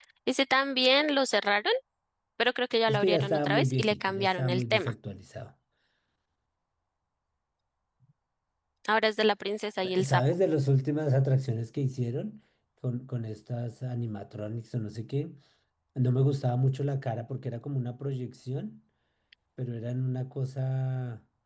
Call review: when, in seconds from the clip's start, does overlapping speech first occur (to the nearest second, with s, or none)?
3 s